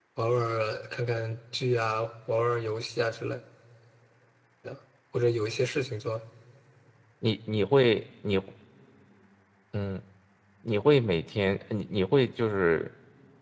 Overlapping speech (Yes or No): No